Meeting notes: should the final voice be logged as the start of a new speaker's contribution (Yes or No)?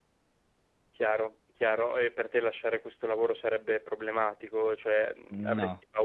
No